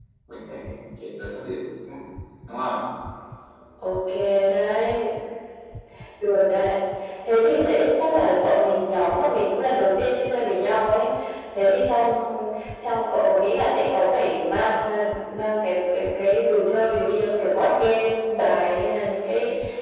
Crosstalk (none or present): none